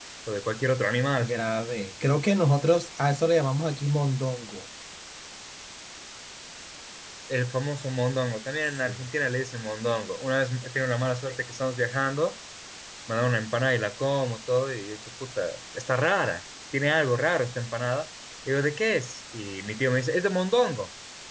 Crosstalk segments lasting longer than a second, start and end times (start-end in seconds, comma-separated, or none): none